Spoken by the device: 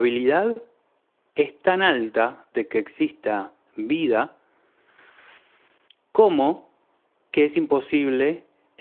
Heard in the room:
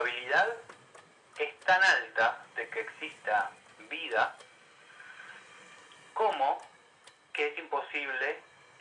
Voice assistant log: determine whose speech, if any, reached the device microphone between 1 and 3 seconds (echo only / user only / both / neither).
echo only